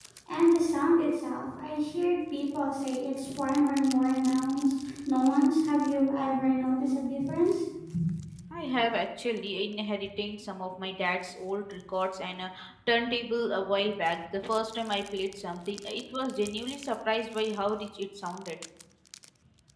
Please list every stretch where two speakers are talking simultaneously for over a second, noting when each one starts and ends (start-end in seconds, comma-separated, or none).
none